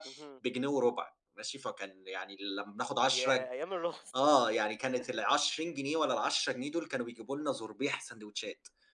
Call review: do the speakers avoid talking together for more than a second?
Yes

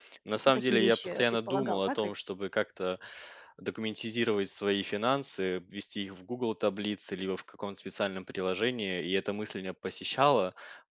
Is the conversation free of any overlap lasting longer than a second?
No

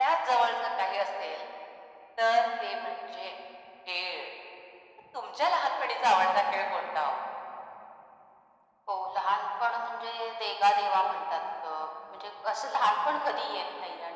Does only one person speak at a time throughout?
Yes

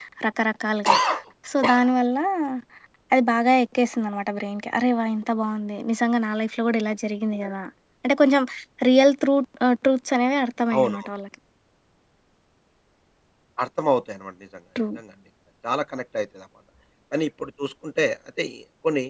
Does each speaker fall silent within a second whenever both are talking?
Yes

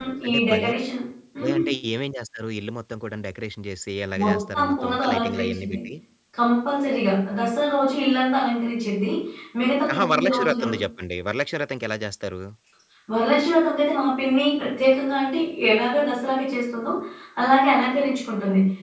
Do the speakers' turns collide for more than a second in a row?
Yes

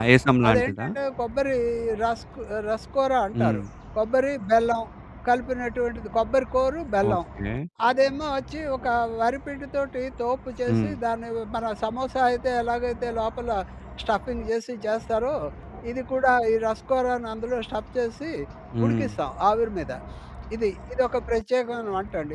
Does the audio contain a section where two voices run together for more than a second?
No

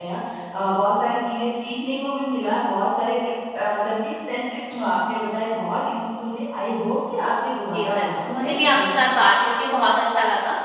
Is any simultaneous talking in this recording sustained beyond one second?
Yes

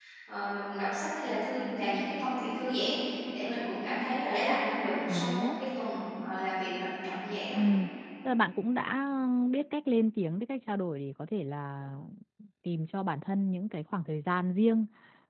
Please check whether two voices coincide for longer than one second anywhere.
No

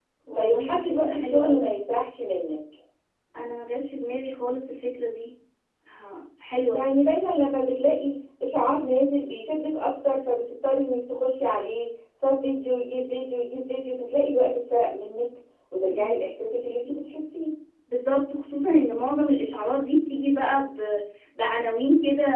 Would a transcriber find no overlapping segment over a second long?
No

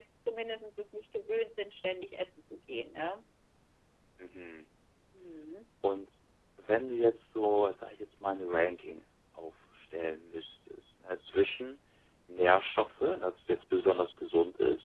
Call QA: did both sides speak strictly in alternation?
Yes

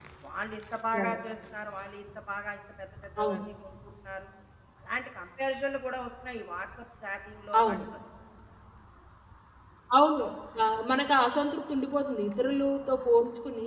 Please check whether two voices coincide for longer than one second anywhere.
No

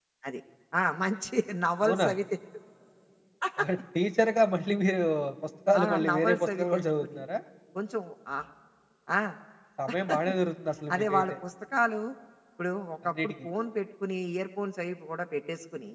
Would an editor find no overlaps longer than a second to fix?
No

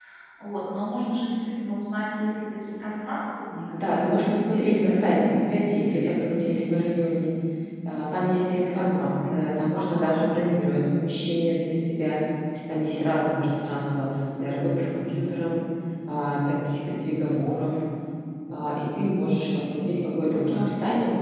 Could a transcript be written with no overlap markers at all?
No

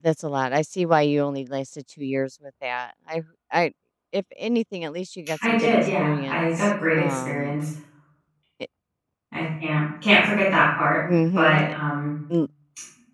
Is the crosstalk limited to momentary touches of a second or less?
No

